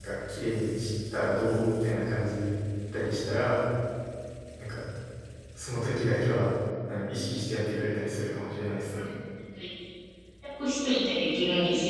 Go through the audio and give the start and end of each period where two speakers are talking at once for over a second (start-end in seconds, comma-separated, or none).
none